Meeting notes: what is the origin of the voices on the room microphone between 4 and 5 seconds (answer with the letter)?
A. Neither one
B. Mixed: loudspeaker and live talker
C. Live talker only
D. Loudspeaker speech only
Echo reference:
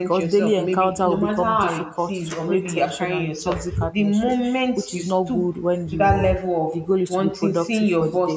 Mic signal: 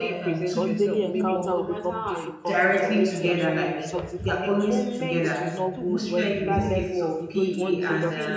B